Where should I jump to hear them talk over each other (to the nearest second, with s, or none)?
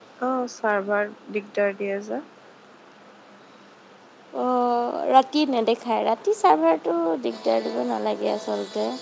none